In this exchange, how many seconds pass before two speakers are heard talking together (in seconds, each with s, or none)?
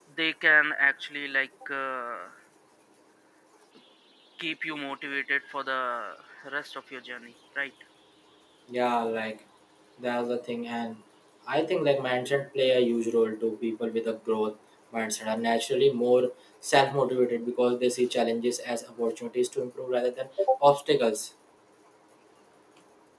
none